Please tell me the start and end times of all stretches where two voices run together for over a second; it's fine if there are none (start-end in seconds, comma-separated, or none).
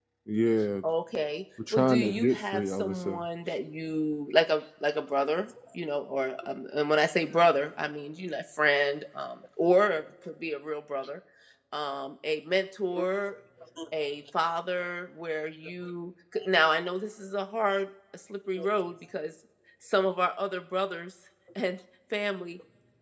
1.7-3.2